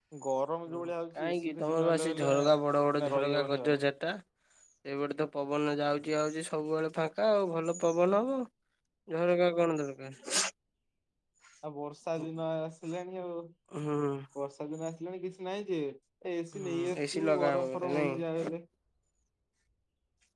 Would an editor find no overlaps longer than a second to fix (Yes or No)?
No